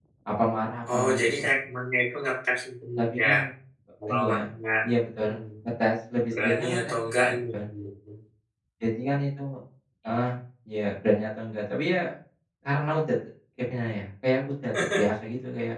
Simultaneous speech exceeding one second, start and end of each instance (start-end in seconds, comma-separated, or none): 6.3-7.6